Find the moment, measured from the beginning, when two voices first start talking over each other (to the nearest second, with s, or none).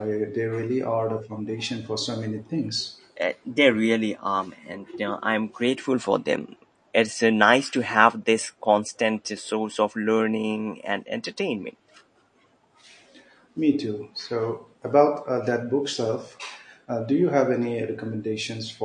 none